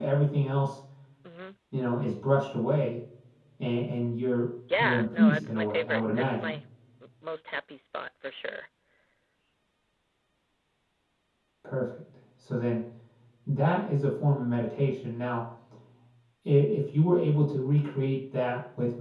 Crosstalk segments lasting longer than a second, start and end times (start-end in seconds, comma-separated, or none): 4.8-6.6